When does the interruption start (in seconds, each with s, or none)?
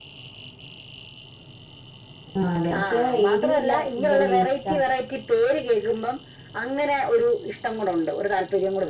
2.8 s